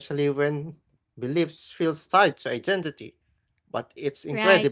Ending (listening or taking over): taking over